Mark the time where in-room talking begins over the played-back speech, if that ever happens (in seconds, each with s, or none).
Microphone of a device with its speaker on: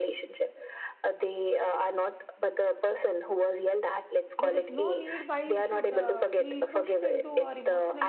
4.4 s